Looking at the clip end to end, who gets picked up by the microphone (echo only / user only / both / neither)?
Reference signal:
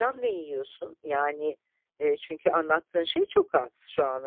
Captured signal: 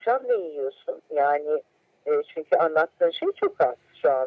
echo only